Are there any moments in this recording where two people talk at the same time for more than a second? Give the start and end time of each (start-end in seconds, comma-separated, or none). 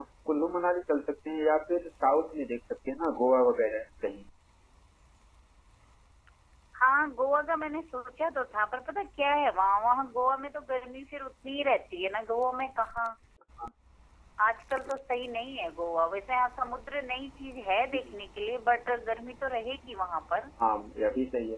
none